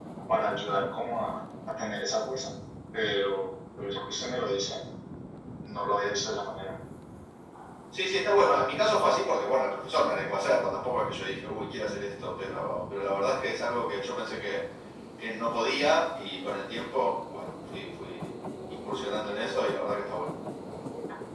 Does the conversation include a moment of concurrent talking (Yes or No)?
No